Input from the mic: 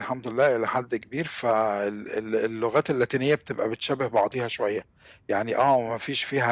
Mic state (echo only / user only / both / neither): user only